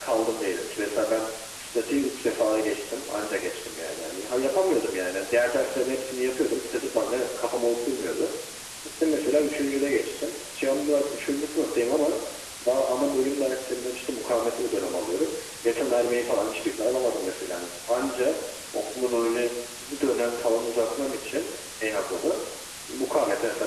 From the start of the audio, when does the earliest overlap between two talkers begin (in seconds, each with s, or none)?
none